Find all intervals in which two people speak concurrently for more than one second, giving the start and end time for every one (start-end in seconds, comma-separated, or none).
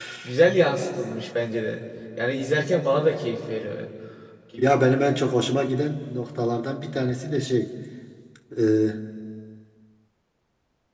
none